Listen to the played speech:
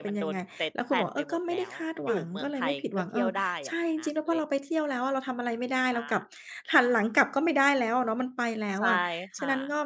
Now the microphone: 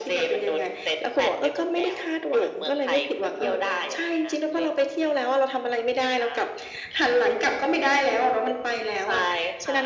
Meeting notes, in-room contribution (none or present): none